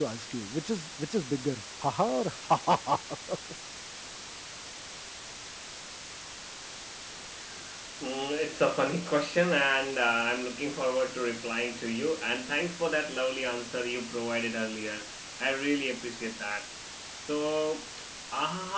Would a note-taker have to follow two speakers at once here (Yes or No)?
No